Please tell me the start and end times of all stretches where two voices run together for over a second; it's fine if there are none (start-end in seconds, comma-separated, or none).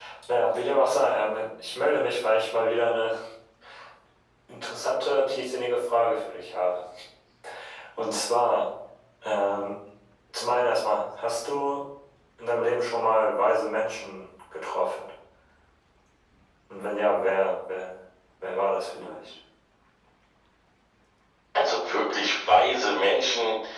none